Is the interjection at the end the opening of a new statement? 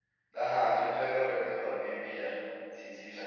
Yes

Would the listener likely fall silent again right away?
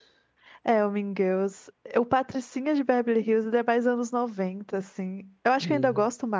Yes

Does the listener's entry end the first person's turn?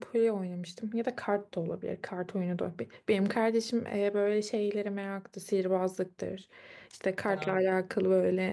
No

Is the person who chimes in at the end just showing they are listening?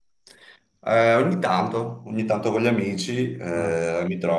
Yes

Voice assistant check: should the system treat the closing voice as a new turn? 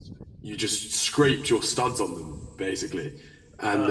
No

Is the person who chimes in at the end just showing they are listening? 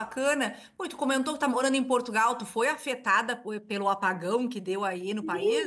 No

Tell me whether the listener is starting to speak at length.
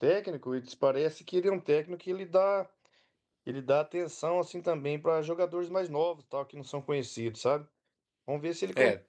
No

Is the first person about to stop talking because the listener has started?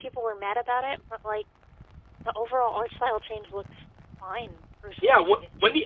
Yes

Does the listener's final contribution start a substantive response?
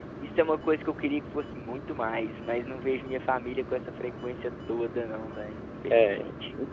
Yes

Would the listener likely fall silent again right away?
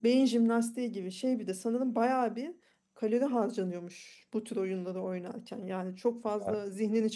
Yes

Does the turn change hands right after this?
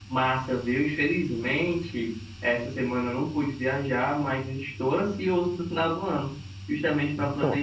No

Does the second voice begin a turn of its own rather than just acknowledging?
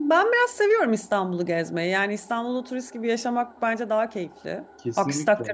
No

